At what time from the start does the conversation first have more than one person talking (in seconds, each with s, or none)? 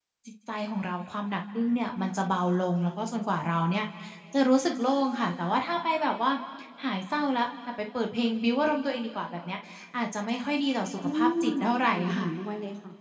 11.0 s